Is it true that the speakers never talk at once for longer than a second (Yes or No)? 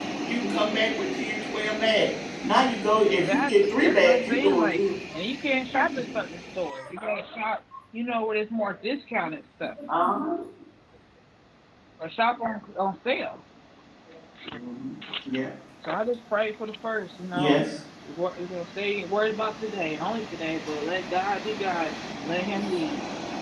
No